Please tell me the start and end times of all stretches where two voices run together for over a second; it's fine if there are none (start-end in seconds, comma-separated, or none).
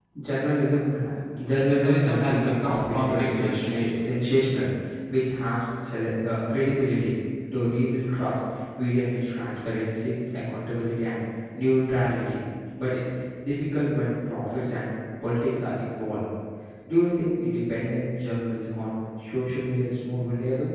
1.6-4.0